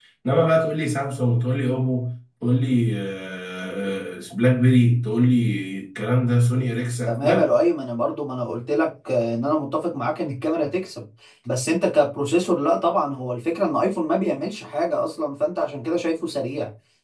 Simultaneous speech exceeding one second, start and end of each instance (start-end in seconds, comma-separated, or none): none